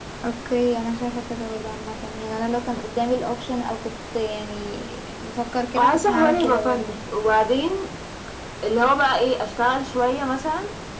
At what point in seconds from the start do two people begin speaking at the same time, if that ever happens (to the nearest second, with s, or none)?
6 s